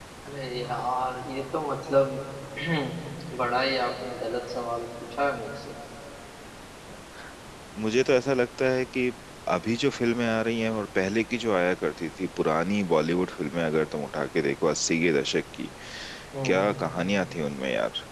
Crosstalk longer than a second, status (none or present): none